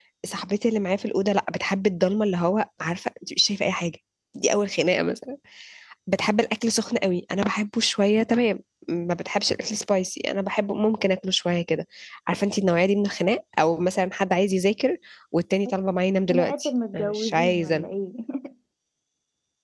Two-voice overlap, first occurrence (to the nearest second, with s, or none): 16 s